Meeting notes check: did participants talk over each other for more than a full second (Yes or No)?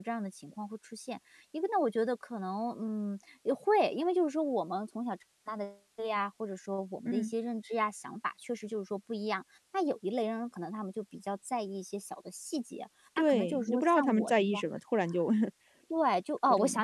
Yes